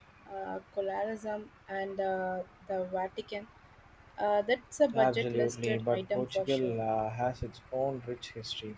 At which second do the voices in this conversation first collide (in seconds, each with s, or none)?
4.9 s